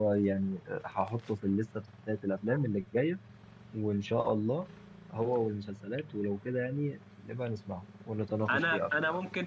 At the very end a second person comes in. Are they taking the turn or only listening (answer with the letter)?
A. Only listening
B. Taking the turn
B